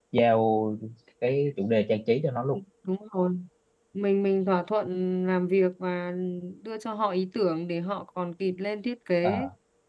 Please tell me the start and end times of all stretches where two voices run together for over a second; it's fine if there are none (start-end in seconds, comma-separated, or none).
none